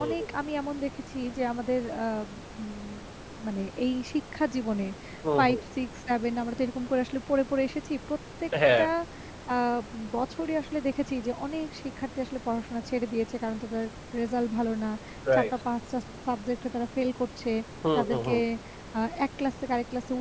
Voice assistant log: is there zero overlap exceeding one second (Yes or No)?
Yes